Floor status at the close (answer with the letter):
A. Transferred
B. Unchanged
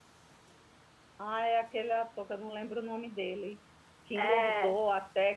B